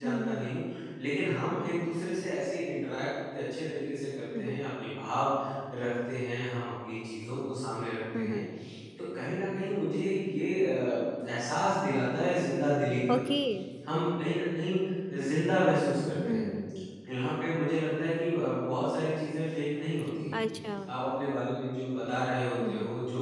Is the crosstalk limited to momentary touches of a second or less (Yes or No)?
Yes